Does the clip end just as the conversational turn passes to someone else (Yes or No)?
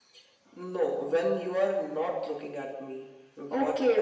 Yes